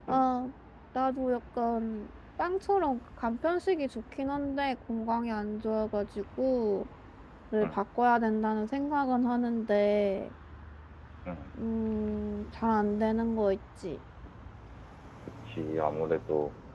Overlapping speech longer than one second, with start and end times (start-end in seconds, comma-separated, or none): none